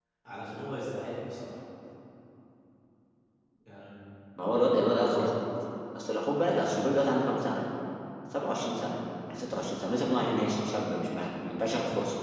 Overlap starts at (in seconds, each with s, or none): none